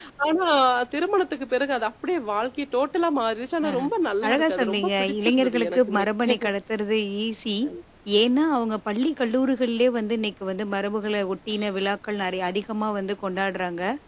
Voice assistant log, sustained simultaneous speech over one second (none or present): present